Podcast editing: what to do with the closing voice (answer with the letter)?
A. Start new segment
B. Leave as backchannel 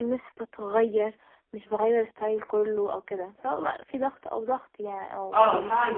A